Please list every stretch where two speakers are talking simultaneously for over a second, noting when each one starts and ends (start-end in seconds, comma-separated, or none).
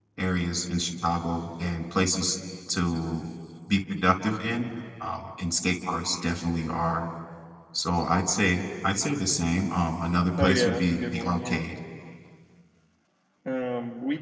10.4-11.6